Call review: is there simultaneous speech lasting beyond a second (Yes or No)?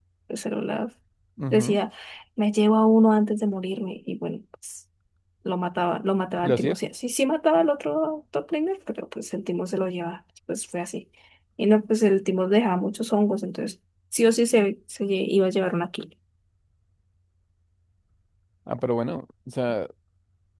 No